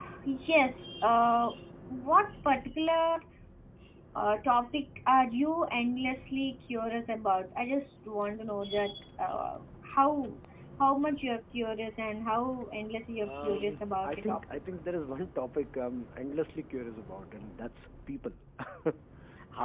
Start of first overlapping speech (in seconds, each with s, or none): 13.2 s